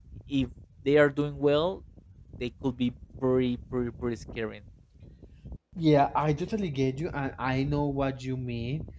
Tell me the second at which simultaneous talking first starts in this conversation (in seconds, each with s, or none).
none